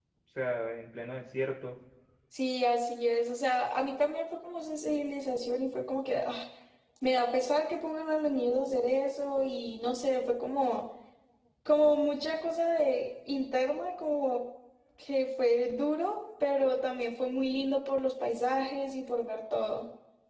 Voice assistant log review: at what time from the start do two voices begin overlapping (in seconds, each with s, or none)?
none